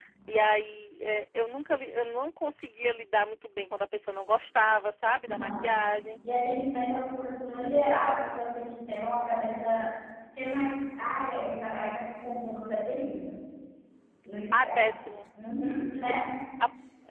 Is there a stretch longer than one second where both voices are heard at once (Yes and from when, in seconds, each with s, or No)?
No